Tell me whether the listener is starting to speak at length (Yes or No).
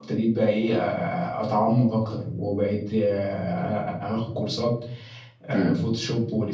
No